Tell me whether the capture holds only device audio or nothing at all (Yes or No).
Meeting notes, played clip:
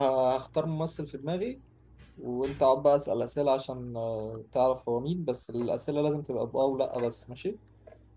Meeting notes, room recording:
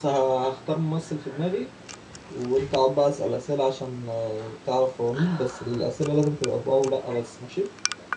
Yes